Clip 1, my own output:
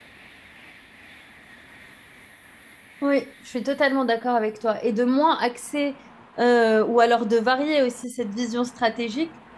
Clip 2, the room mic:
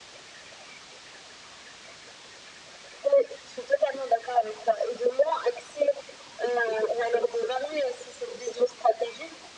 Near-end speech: none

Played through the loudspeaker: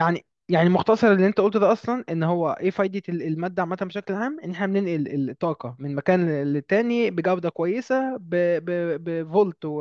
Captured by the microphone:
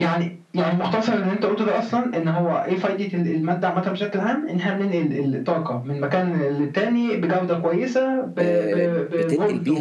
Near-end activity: present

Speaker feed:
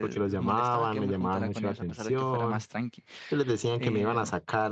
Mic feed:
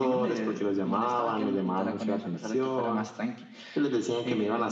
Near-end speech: none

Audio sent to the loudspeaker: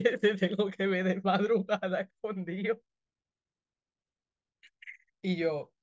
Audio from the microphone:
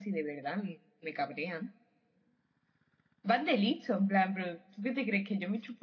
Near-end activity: present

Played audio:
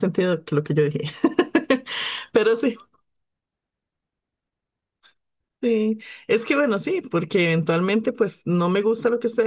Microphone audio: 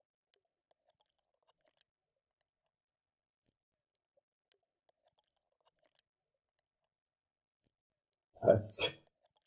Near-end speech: present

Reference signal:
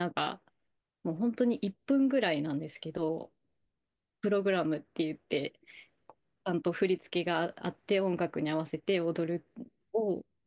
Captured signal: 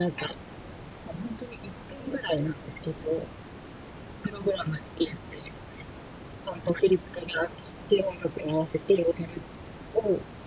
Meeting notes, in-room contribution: none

